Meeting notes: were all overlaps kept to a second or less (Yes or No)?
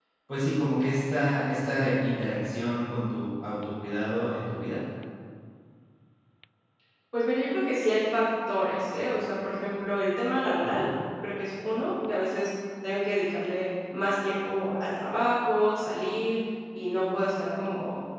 Yes